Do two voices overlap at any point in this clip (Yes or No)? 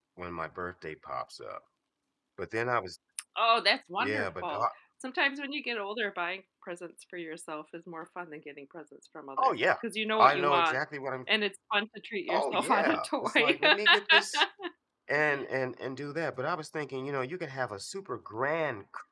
Yes